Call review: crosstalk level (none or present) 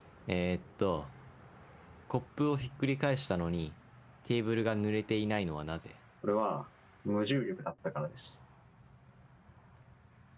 none